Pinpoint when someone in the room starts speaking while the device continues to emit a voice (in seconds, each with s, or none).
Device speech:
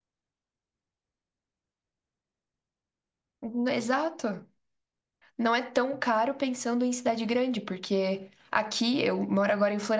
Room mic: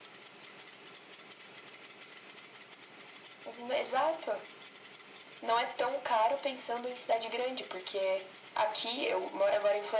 none